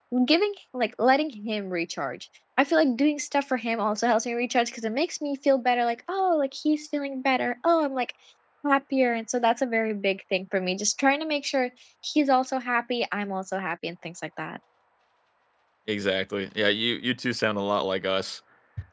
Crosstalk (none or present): none